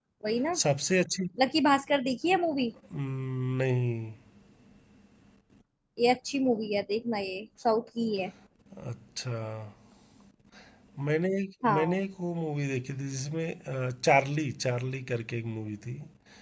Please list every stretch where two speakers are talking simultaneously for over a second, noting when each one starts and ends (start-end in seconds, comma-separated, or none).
none